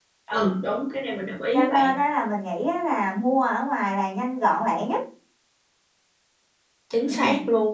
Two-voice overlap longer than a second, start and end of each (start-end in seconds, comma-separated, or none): none